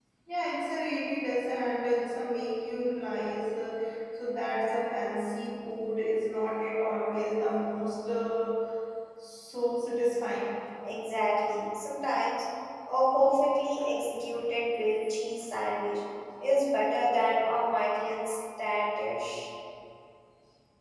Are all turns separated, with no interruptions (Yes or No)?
Yes